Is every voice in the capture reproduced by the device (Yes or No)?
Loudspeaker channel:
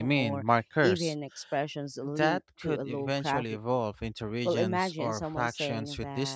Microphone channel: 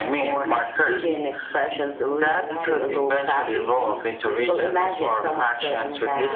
No